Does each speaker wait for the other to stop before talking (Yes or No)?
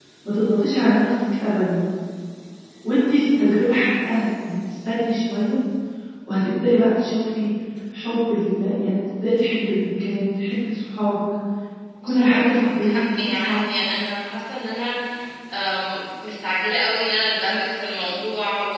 No